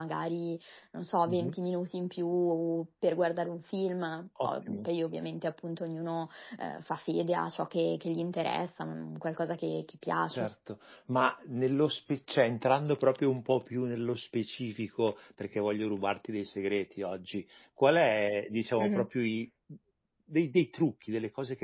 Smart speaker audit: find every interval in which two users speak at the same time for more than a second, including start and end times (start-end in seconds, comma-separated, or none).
none